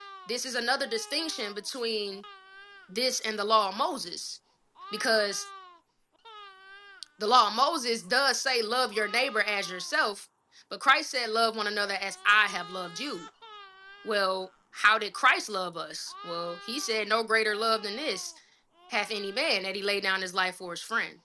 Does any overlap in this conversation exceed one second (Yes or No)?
No